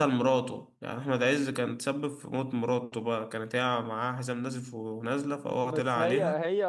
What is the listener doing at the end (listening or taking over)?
taking over